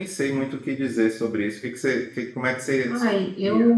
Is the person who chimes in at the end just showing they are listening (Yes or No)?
No